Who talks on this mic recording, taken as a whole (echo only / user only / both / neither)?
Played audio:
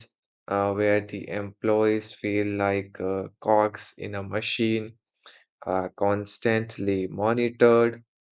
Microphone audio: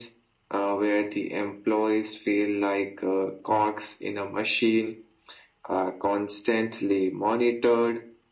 echo only